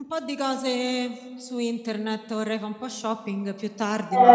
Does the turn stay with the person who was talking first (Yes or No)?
No